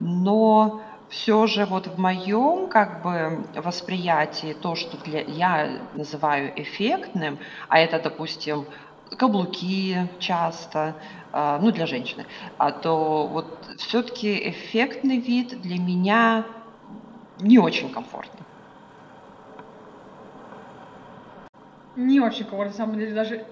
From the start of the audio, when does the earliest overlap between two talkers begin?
none

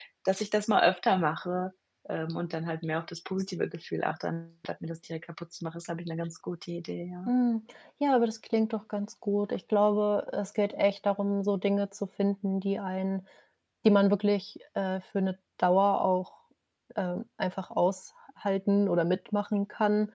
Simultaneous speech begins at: none

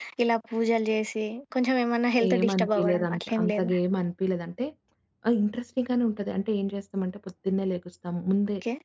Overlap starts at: 2.2 s

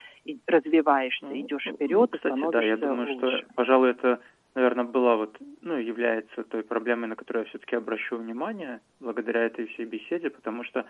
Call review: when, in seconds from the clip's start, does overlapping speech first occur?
1.2 s

